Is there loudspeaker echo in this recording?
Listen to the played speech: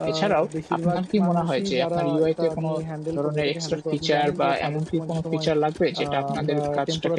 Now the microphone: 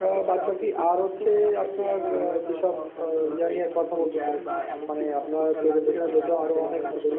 Yes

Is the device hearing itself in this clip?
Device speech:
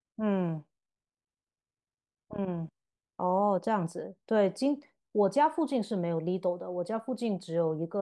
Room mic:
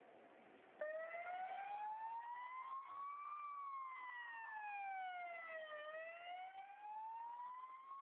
No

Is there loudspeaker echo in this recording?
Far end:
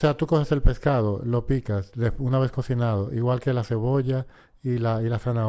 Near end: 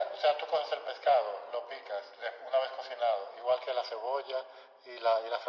Yes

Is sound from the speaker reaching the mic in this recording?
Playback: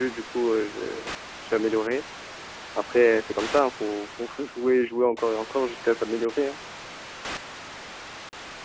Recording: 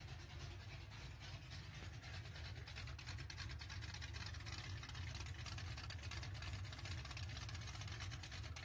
No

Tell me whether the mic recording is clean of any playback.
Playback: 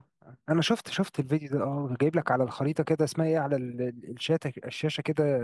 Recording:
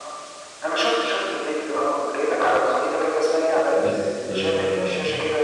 No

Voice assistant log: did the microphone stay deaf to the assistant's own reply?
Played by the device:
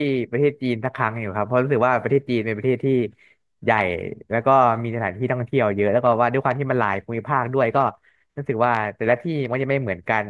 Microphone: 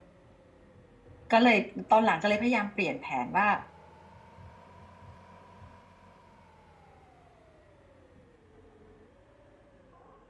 Yes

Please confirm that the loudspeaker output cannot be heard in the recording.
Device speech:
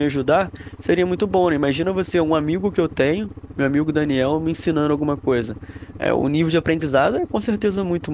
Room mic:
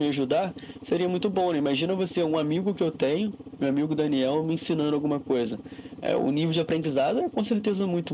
No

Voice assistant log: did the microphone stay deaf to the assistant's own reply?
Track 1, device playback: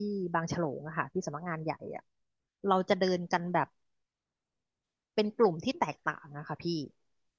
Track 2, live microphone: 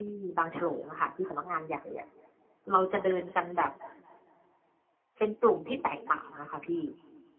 No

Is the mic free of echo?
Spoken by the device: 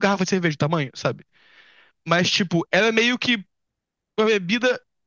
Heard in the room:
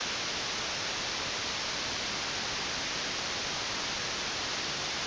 Yes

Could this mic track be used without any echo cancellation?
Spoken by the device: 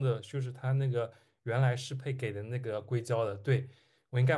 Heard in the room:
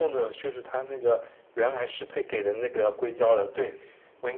No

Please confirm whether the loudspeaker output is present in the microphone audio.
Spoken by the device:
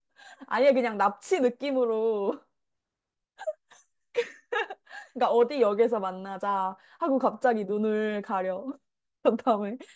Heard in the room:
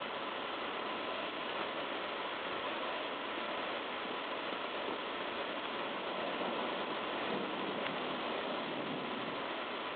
No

